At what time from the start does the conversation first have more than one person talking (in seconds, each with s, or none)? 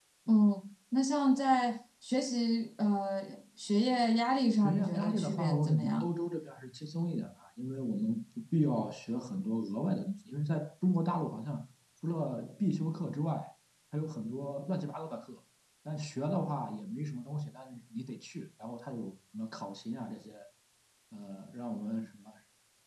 4.5 s